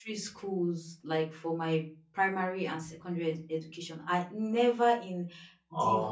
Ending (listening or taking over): listening